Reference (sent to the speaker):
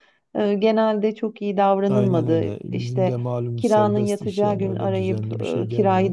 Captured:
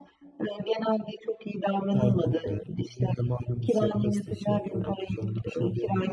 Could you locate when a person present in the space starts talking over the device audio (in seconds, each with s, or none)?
none